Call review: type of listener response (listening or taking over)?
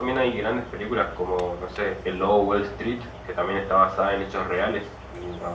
taking over